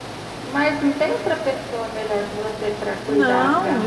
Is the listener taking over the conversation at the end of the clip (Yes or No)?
Yes